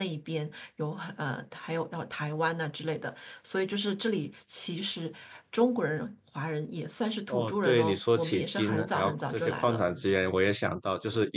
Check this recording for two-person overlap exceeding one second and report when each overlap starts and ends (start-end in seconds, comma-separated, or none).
7.3-9.8